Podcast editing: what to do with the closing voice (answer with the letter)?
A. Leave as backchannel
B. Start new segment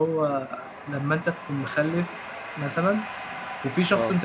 A